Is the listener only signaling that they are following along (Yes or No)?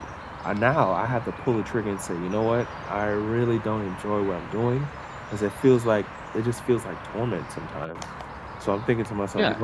No